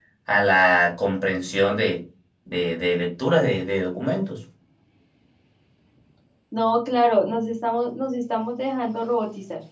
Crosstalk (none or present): none